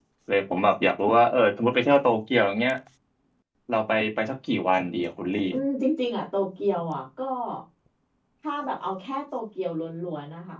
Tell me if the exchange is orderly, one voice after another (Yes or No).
Yes